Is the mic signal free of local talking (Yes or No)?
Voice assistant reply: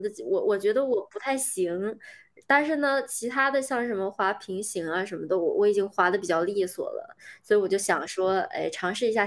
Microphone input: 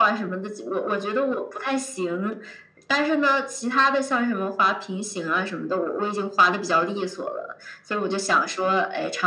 Yes